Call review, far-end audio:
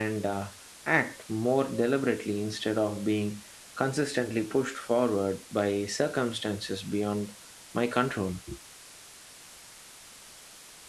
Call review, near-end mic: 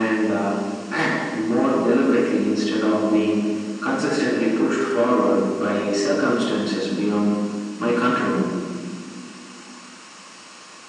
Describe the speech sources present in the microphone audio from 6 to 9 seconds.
echo only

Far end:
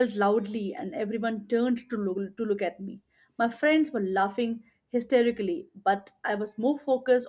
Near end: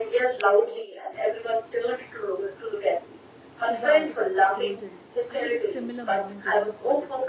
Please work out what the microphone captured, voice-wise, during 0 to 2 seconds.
echo only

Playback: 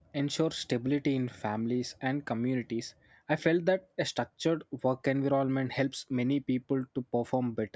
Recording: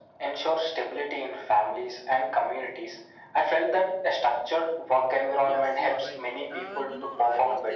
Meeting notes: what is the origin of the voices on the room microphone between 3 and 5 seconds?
echo only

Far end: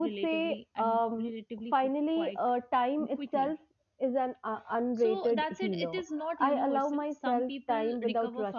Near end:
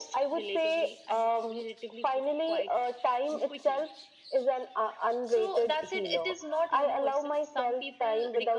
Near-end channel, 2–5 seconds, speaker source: echo only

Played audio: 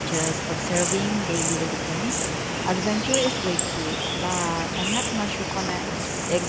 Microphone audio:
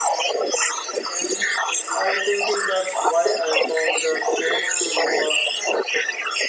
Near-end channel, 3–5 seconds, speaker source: both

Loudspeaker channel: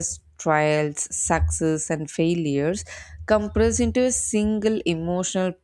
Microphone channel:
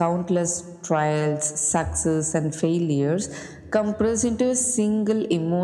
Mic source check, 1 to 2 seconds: echo only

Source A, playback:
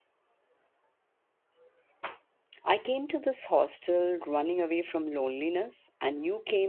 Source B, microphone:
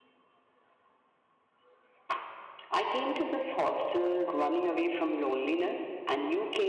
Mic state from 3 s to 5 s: echo only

